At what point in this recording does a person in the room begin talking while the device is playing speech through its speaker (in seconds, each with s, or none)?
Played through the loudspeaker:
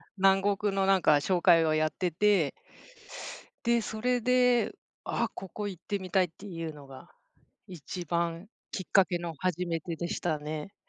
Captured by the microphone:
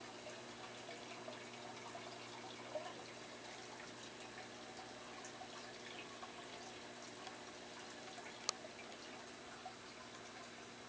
none